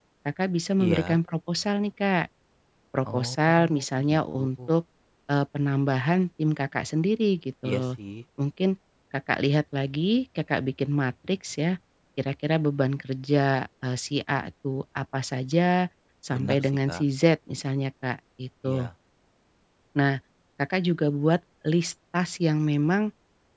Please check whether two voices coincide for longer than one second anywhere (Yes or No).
Yes